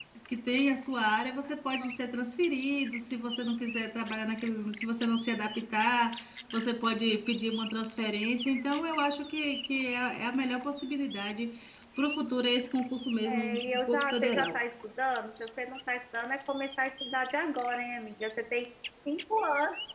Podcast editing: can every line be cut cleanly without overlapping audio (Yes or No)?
No